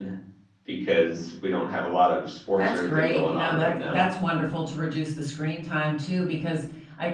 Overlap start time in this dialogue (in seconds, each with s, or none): 2.6 s